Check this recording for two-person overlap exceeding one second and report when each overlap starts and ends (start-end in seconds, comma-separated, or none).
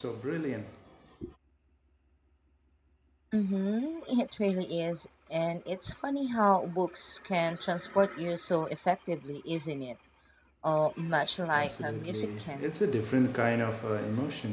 11.5-12.7